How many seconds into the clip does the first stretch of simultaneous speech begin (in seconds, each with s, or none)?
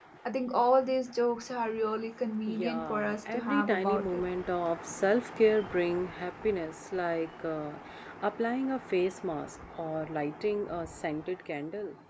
2.5 s